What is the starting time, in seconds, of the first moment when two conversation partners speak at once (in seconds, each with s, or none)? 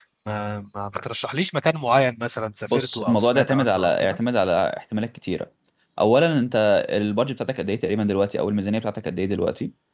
2.7 s